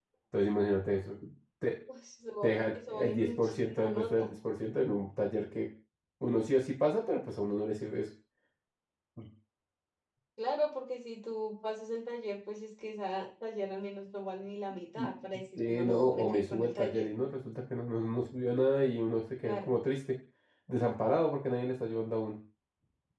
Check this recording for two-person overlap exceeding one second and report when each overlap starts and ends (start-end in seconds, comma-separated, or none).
2.4-4.3, 15.7-17.1